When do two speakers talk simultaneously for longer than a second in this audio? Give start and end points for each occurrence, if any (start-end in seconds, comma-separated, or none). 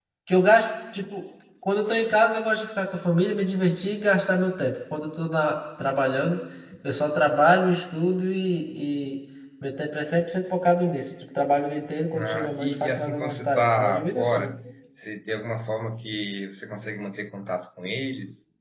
12.1-14.5